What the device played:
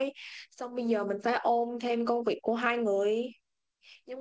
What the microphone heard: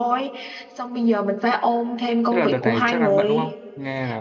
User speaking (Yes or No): Yes